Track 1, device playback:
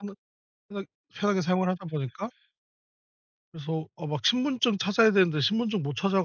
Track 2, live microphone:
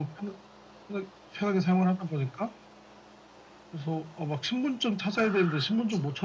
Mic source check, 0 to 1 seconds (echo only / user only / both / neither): echo only